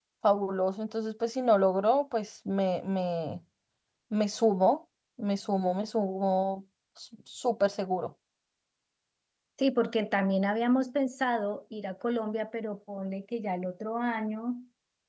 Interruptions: none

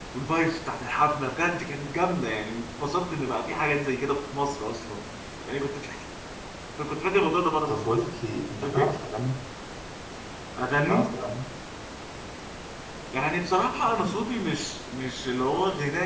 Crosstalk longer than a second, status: none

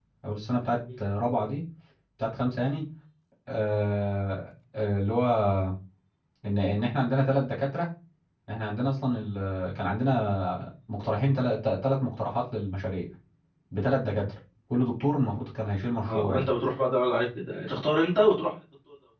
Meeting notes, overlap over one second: none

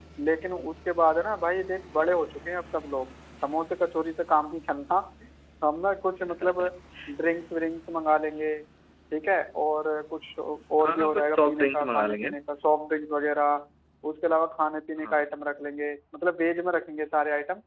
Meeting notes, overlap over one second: present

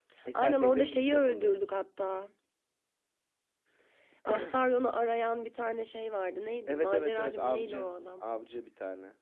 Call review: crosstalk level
present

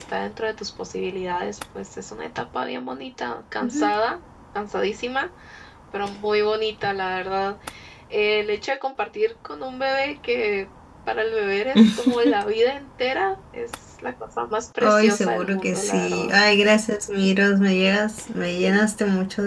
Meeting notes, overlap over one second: present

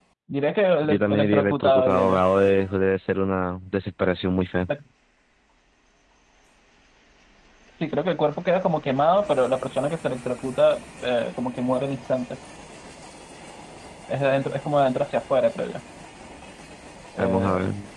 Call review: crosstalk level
present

